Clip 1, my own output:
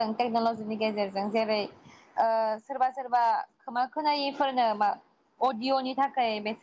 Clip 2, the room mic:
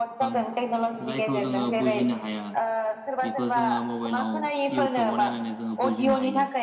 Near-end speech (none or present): present